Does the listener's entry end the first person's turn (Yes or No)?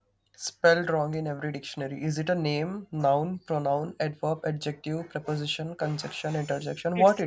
Yes